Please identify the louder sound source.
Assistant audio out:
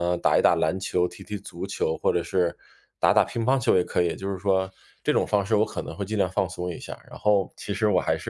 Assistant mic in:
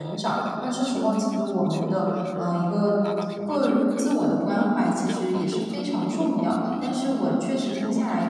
user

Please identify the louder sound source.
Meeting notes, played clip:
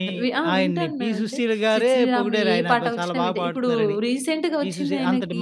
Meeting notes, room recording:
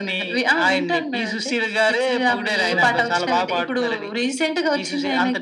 echo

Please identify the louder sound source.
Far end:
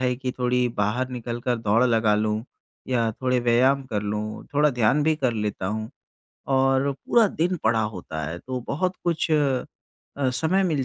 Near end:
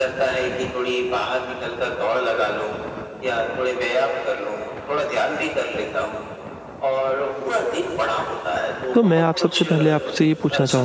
user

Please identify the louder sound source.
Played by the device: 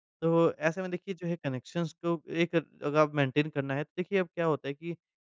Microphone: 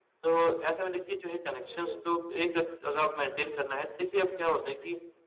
echo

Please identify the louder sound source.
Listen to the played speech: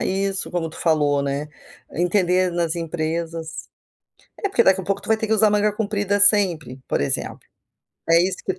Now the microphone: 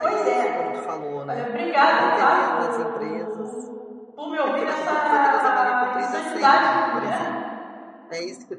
user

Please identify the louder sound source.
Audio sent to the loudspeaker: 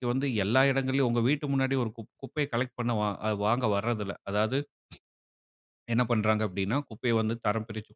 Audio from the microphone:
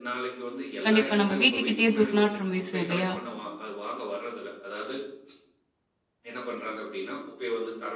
user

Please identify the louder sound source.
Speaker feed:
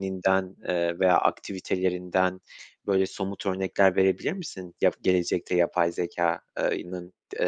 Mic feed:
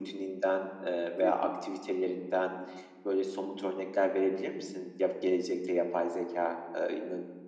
echo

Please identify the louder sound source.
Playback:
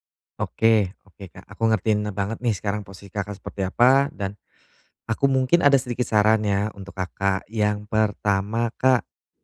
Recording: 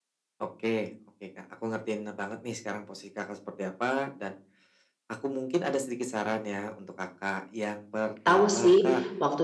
user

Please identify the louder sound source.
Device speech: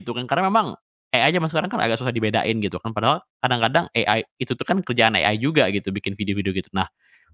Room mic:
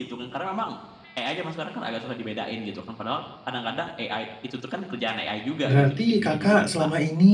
user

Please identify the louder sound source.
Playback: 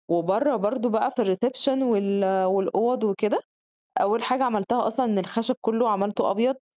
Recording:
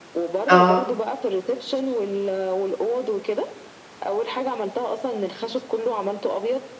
user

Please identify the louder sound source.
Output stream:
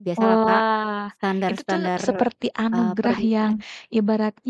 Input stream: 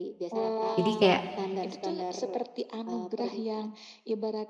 user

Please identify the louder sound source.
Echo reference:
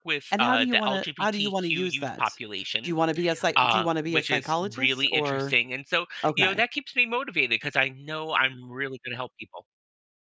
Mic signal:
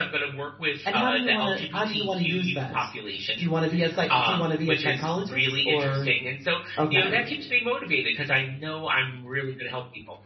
echo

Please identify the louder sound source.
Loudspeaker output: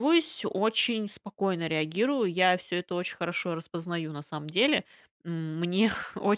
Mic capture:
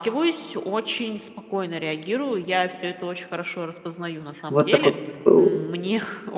user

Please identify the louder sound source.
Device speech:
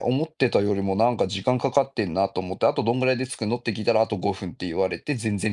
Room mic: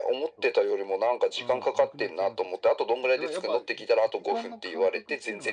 echo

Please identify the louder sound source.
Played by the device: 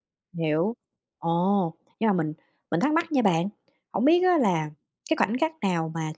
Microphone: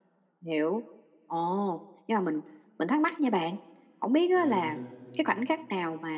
echo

